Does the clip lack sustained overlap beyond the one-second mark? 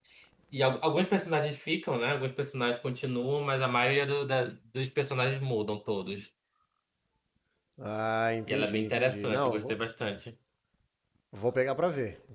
No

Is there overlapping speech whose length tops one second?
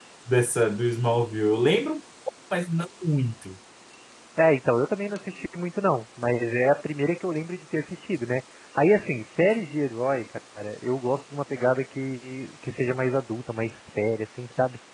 No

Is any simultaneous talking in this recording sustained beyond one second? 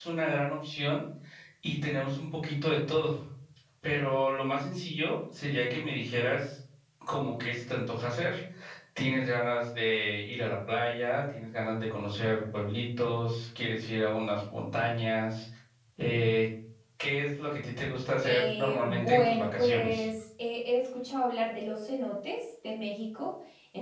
Yes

